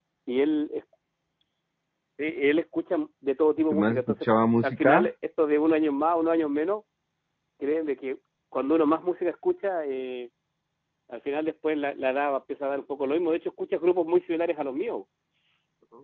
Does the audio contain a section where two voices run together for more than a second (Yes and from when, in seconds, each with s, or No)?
No